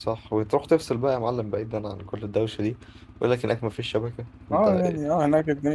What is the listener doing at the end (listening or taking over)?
taking over